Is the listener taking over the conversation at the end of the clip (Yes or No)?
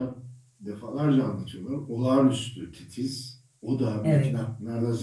No